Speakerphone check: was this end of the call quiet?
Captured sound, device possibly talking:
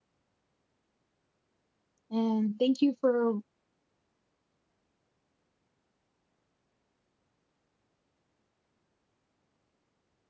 No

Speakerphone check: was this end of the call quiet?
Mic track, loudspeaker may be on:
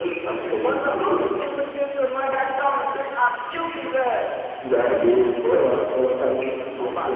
Yes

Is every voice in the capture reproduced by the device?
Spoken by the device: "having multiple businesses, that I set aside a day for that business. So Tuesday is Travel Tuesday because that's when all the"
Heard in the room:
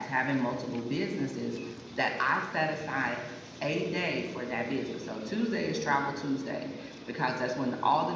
Yes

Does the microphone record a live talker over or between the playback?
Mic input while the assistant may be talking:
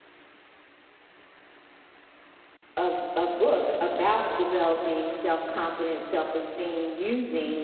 Yes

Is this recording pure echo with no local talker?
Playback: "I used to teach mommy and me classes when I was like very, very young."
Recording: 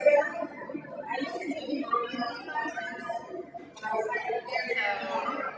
No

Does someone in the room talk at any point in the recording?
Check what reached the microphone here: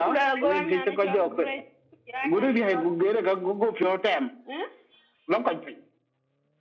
No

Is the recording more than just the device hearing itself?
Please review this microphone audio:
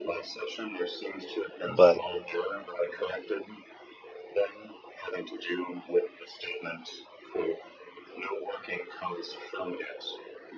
Yes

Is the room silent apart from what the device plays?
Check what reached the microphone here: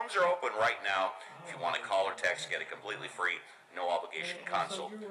No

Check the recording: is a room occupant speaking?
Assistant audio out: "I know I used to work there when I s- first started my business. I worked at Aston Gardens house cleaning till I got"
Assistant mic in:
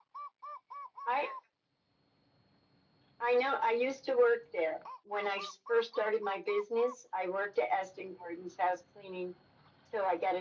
No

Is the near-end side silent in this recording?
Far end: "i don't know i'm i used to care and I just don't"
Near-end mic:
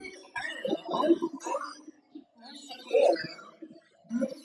Yes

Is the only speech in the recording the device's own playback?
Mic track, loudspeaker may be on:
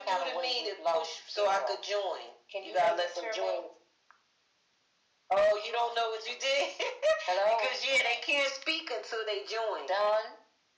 Yes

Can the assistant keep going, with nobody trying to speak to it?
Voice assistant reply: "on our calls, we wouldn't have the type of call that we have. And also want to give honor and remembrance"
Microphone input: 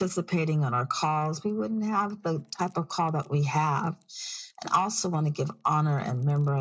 Yes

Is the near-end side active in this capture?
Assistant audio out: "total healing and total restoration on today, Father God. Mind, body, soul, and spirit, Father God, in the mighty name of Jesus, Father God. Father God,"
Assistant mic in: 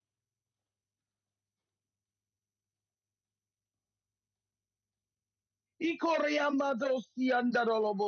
Yes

